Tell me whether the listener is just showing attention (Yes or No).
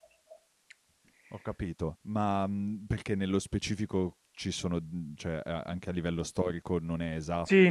No